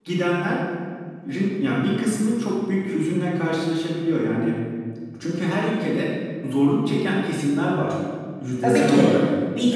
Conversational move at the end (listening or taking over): taking over